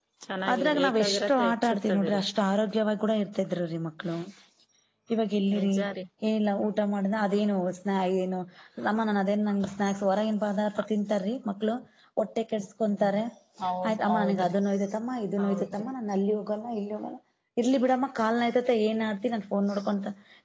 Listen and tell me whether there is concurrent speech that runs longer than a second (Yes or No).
Yes